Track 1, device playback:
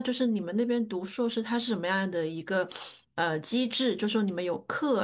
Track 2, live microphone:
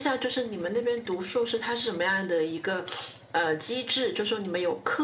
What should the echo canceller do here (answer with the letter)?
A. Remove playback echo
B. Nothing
A